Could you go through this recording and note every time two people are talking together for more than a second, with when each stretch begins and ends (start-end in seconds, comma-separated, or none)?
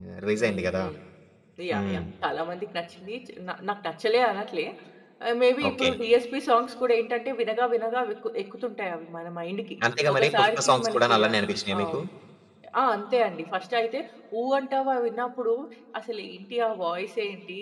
10.1-11.4